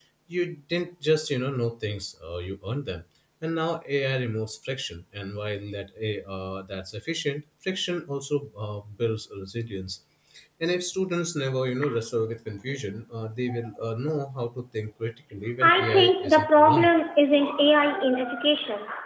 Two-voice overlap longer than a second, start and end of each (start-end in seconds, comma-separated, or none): 15.6-16.9